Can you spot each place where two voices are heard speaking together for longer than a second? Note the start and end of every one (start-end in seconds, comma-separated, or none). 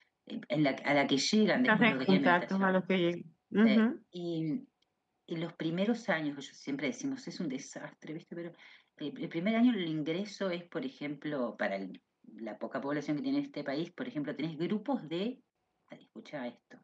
1.6-2.8